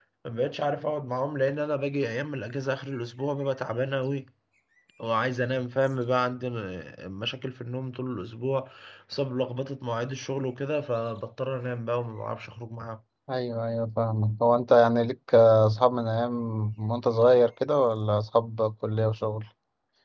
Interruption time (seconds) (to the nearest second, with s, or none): none